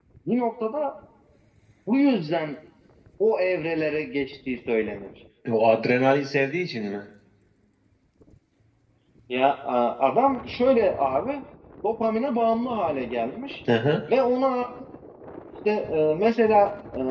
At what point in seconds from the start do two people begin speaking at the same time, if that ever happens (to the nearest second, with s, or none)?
none